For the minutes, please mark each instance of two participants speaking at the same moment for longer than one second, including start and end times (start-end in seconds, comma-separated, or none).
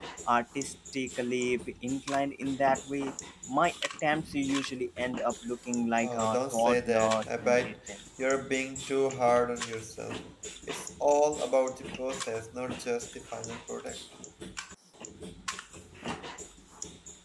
6.0-7.8